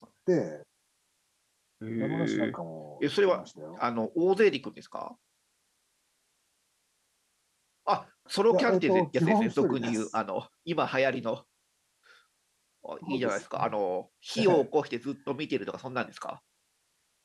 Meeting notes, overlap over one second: present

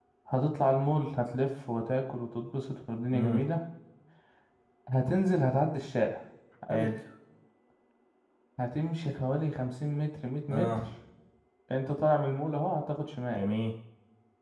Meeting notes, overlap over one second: none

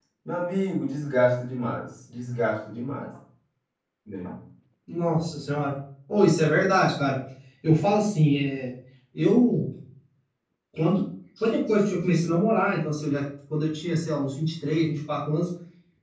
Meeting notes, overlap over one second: none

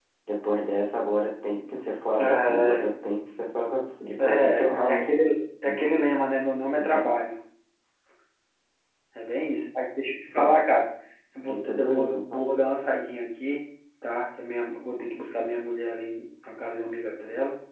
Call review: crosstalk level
present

